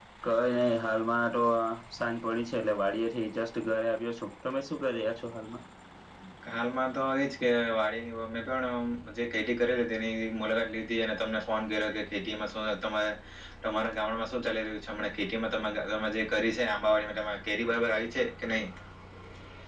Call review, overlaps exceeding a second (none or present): none